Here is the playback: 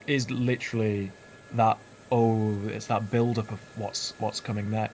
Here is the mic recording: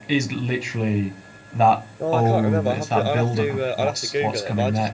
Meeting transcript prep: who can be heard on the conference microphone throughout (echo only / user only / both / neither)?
both